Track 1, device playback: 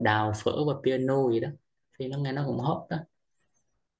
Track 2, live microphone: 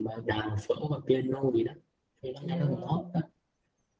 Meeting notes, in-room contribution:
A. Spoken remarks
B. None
A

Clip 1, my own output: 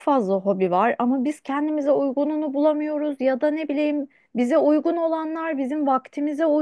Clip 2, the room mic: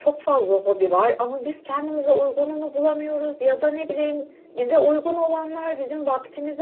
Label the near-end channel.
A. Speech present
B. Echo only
B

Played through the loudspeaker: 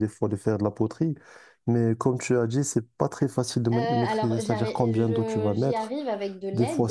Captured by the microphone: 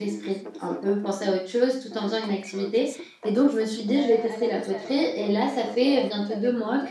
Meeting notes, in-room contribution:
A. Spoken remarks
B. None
A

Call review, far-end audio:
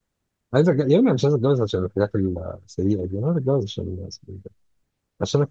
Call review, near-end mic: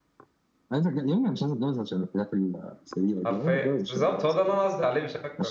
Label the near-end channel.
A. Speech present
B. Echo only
A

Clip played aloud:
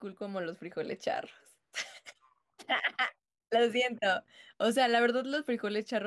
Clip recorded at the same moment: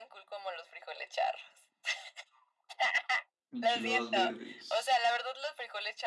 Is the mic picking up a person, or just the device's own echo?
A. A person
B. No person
A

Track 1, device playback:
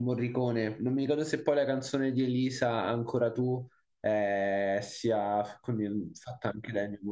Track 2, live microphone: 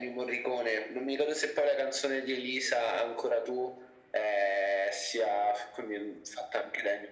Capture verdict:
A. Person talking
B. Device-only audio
B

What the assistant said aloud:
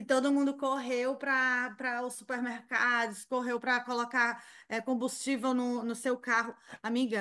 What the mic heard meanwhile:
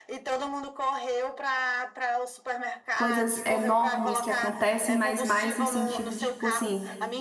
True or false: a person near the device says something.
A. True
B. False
A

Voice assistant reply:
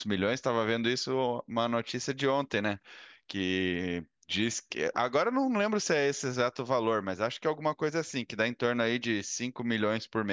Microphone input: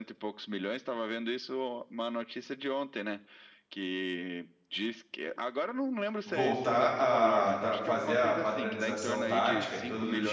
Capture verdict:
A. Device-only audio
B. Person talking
B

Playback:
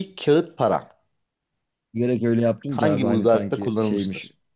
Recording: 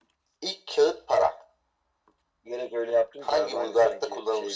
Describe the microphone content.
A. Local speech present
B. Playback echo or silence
B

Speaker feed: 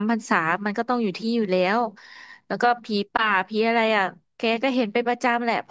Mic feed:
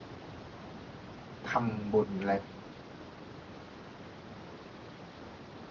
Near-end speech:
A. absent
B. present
B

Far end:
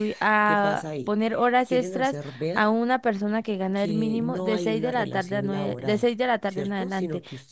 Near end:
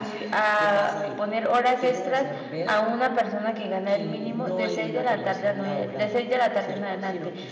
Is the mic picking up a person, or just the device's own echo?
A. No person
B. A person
A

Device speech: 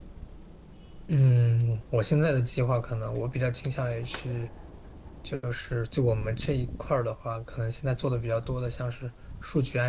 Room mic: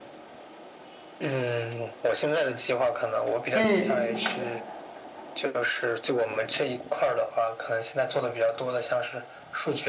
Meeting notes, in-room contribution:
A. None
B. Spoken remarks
B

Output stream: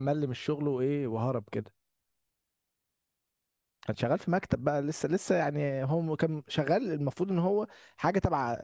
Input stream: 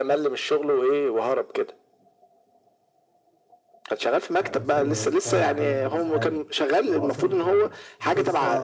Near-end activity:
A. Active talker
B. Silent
A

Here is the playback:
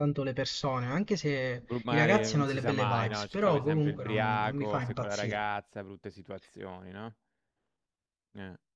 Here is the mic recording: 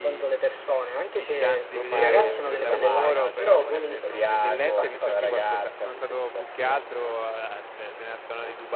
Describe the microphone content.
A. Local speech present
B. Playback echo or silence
A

